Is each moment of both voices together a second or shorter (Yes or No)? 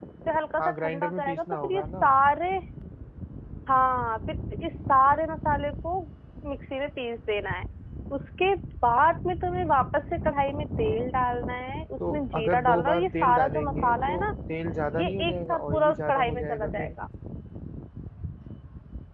No